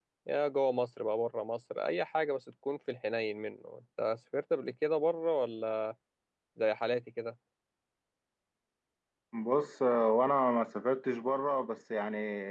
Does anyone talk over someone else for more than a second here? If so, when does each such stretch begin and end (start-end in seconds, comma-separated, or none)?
none